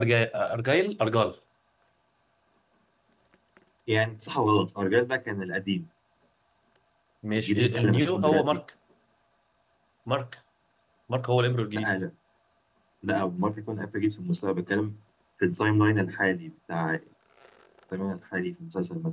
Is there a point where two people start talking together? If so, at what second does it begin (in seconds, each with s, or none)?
7.4 s